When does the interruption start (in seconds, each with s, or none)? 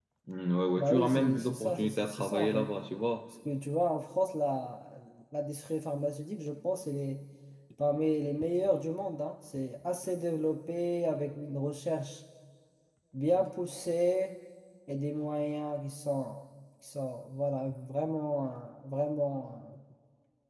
0.8 s